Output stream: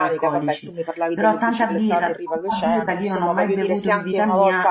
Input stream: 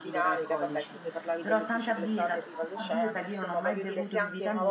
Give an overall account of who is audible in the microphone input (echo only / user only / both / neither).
echo only